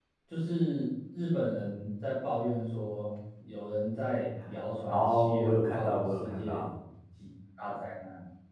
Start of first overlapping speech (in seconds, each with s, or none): 4.9 s